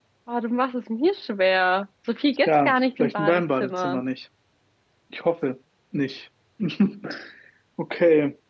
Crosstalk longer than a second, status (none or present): present